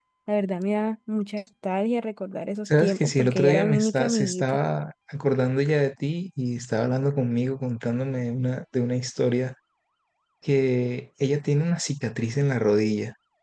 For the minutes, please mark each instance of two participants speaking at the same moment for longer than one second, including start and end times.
2.6-4.6

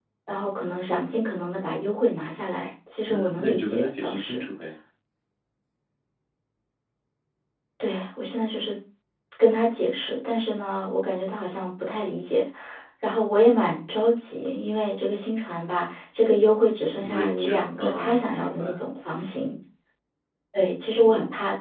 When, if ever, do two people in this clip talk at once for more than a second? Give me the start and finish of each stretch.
3.1-4.4, 17.0-18.8

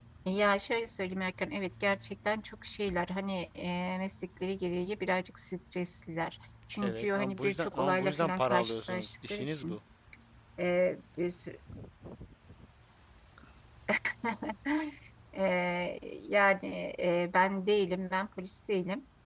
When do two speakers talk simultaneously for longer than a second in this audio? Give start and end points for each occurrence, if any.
6.8-9.8

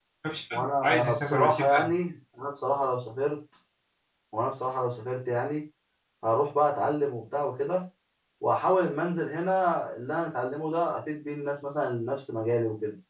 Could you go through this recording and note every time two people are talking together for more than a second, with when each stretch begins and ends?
0.5-1.9

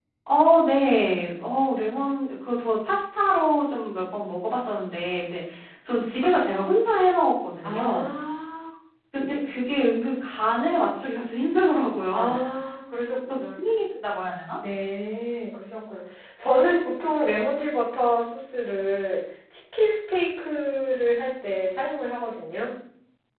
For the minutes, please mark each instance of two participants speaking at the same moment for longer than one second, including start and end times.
none

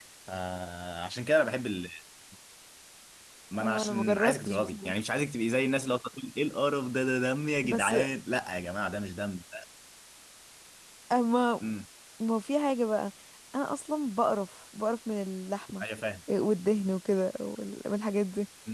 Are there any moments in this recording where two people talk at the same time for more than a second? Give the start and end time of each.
3.6-4.9

